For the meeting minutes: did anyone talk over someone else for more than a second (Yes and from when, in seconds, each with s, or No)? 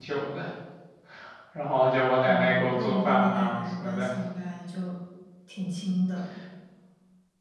Yes, from 2.2 s